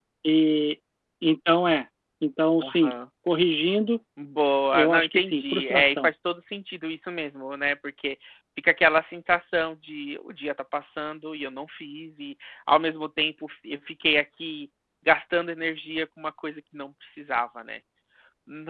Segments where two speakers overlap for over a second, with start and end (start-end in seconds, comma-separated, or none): 4.7-6.1